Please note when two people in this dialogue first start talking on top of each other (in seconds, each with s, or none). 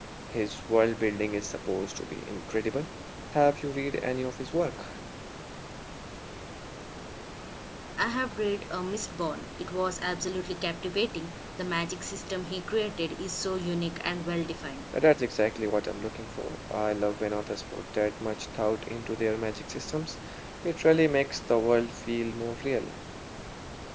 none